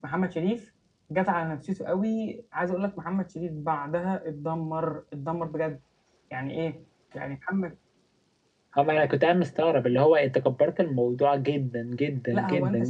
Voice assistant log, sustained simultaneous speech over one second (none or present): none